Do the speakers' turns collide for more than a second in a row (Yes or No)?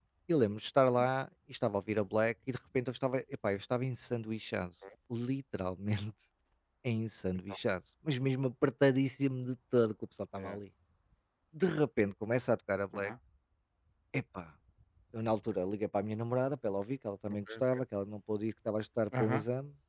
No